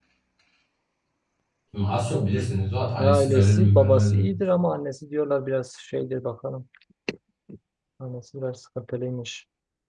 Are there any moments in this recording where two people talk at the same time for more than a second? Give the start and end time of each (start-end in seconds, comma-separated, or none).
3.0-4.3